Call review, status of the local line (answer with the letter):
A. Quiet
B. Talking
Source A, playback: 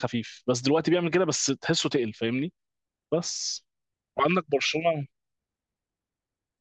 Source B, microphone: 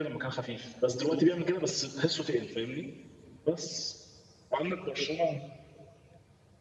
A